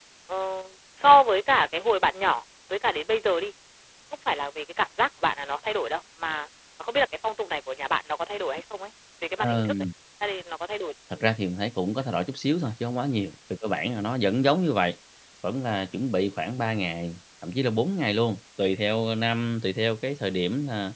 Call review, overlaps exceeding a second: none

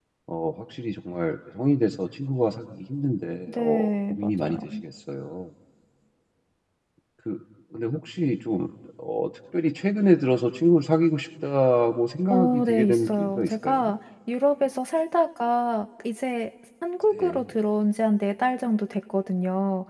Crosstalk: present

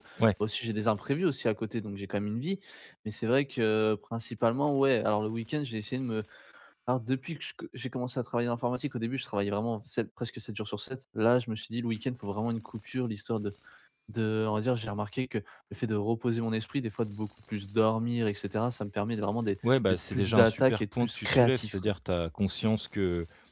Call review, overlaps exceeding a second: present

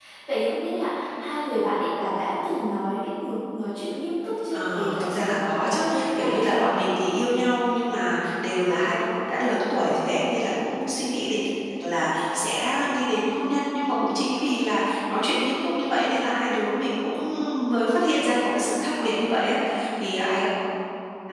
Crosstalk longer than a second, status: present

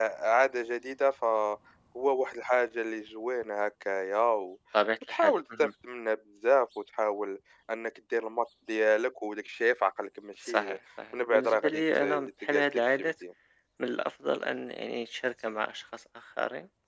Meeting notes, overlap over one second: present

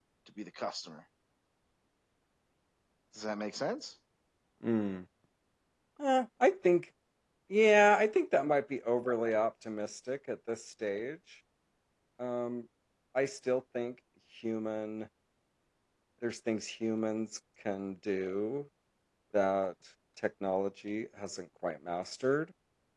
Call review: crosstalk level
none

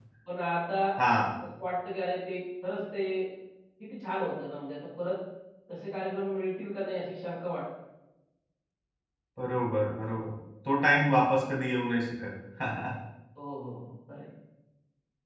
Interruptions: none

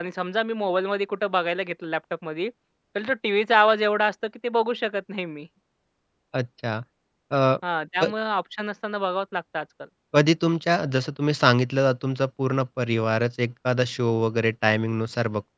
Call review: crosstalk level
none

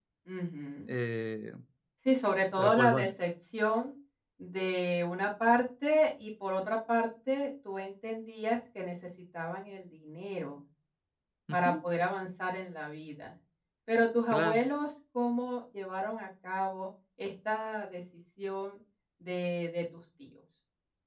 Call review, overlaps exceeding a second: none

